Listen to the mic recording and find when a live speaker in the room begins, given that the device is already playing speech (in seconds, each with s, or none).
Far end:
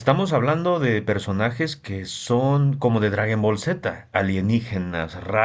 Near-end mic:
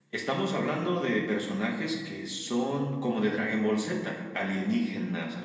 none